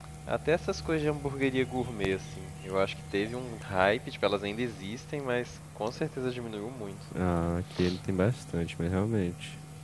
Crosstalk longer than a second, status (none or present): none